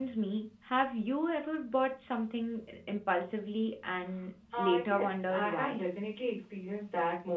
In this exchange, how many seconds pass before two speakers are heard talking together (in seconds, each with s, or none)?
4.5 s